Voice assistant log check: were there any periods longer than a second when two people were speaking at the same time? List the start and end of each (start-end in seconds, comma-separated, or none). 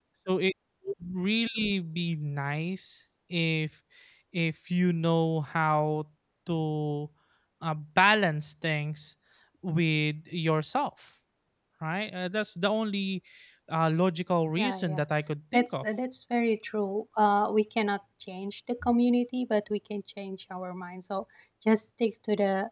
none